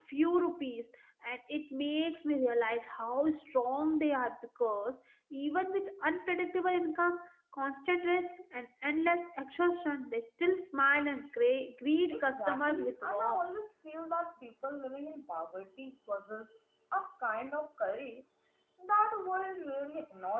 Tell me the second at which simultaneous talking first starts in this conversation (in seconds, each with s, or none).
12.1 s